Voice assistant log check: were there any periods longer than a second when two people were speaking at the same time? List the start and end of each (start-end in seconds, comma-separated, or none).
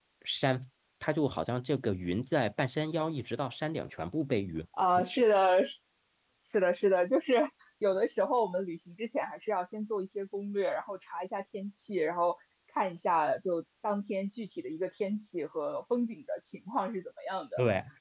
none